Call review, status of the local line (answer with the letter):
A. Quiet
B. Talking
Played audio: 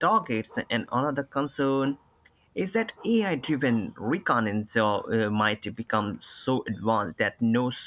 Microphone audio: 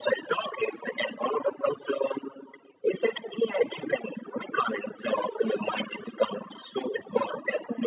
A